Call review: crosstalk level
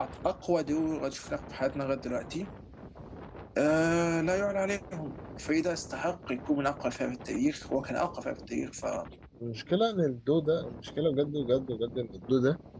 none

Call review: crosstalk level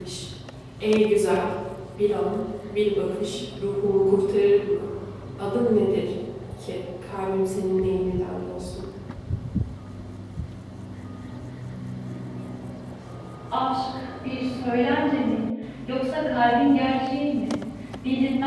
none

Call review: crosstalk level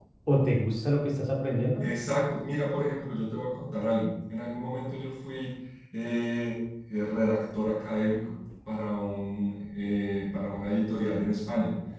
none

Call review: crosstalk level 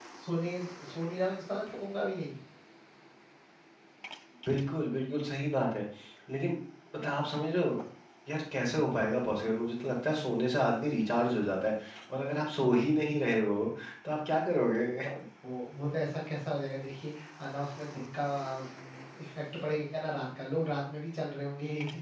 none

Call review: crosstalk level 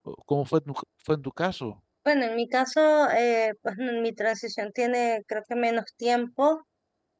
none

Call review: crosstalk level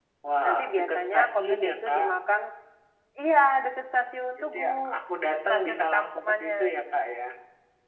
present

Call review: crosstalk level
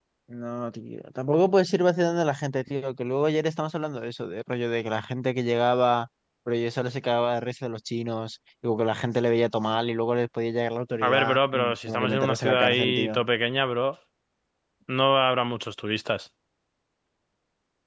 present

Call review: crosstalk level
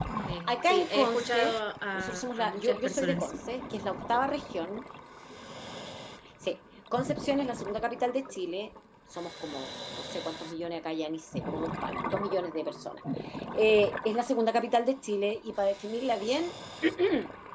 present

